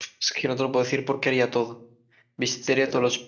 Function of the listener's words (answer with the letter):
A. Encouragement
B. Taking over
A